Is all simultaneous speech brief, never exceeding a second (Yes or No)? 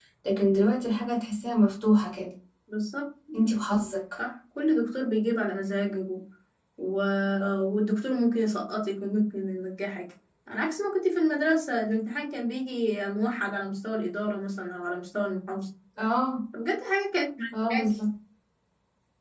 Yes